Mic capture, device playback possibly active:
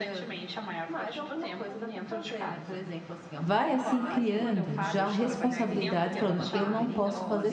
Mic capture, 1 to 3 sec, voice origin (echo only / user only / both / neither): echo only